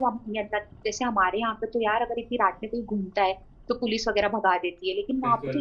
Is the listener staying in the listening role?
Yes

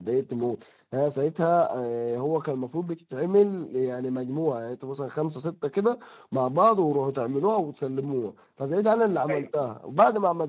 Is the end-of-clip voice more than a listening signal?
No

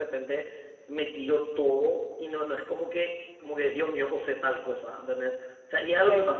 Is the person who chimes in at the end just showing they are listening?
Yes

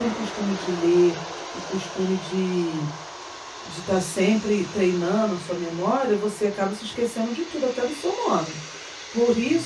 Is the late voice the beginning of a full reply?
No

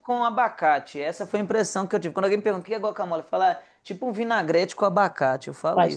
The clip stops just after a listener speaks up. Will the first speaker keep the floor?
No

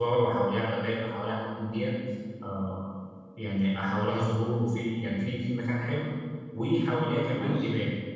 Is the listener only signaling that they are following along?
Yes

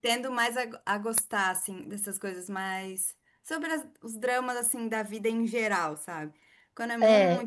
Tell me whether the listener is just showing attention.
Yes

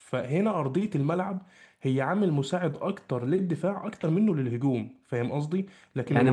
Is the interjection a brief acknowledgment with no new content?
No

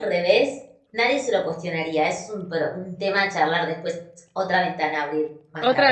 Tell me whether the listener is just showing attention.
No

